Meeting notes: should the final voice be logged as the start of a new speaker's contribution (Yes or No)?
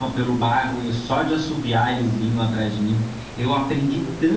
No